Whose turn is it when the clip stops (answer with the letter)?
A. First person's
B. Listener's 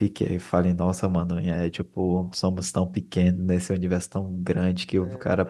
A